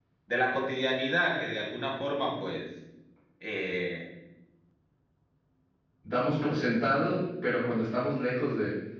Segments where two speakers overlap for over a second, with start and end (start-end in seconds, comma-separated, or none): none